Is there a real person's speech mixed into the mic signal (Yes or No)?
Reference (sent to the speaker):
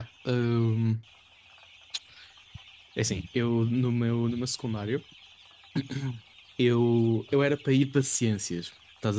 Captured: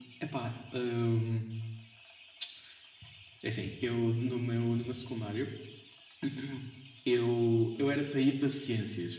No